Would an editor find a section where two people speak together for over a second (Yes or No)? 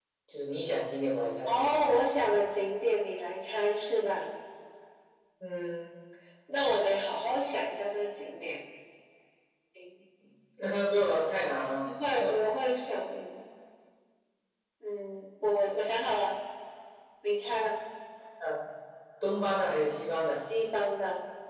No